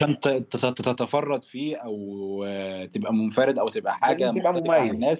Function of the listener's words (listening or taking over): listening